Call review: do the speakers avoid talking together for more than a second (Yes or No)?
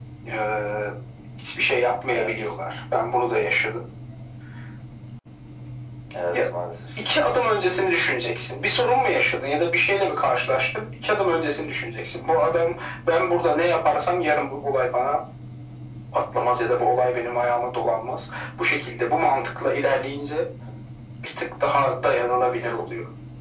Yes